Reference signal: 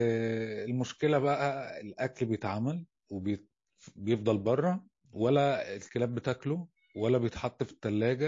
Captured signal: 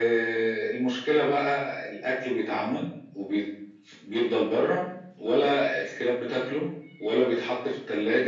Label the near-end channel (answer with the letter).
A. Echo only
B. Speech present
A